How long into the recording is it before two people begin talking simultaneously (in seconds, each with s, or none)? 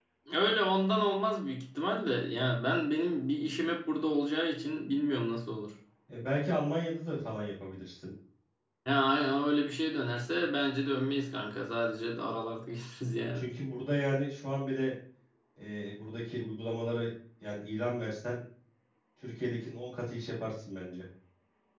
none